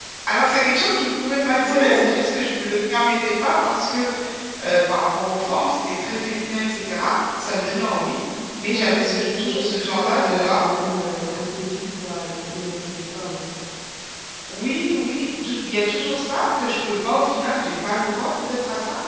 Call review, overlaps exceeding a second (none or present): present